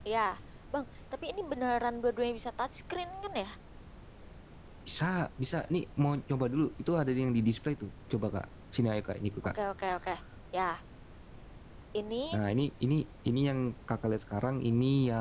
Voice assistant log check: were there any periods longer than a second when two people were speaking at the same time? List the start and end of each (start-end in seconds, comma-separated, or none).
none